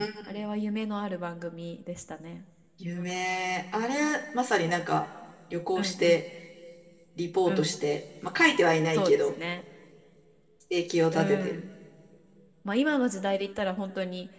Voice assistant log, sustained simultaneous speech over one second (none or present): none